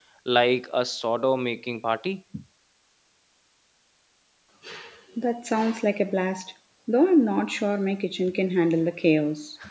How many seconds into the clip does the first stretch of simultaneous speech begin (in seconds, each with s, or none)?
none